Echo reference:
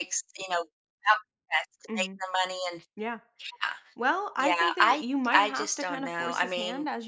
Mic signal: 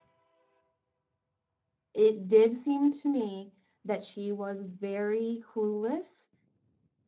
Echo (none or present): none